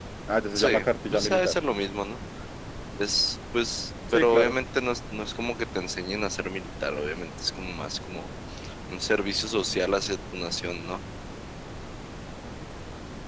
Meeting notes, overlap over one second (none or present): none